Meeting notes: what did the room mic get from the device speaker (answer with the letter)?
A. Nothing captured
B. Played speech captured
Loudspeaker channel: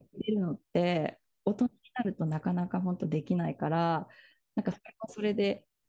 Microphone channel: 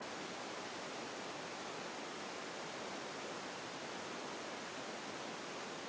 A